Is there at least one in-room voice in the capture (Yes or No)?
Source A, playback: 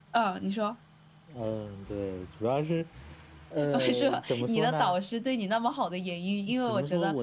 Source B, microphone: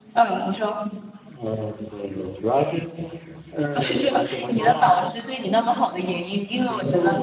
No